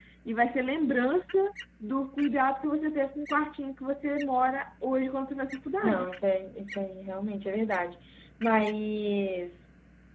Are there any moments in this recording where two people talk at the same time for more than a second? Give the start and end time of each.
none

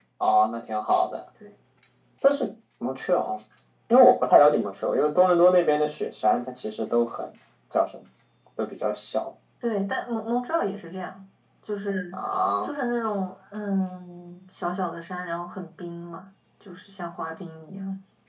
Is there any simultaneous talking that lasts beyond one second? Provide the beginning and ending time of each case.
none

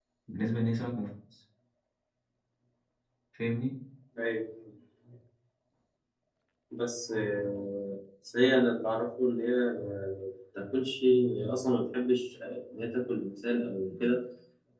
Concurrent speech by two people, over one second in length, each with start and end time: none

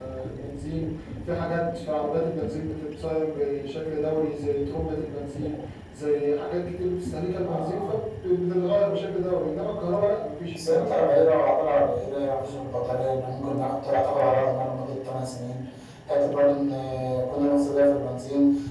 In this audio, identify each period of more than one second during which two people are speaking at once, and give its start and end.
none

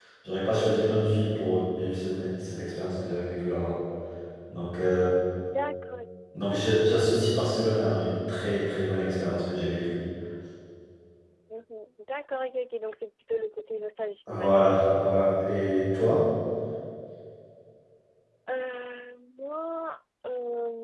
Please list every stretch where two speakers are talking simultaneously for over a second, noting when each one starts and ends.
none

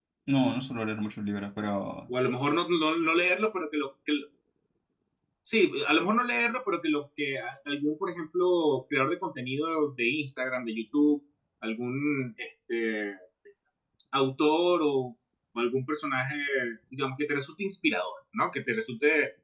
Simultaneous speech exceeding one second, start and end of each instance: none

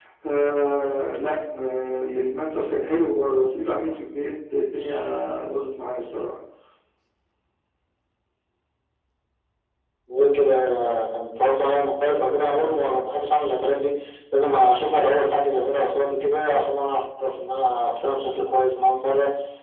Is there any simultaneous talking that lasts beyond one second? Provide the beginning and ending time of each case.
none

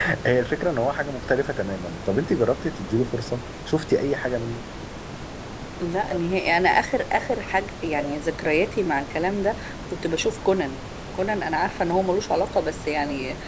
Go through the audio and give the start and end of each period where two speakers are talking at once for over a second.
none

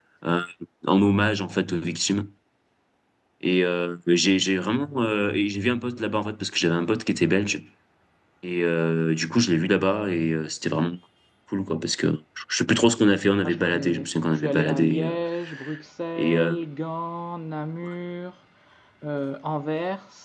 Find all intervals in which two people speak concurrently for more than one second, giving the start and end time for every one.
13.5-15.2

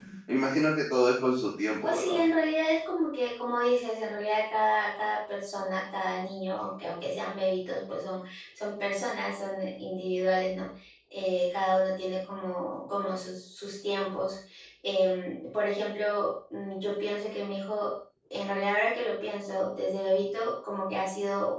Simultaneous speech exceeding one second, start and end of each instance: none

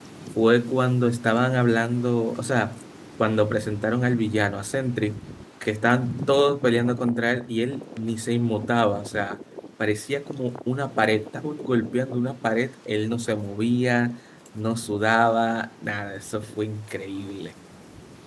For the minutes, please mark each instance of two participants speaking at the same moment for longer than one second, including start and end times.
none

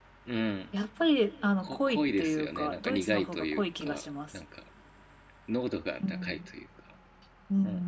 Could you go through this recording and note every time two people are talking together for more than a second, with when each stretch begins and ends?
1.6-4.4

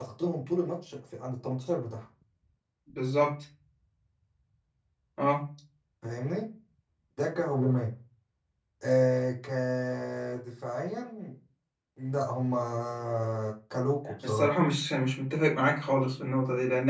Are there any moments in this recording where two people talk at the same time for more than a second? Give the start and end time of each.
none

